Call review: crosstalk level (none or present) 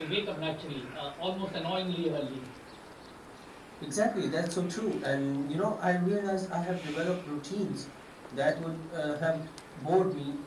none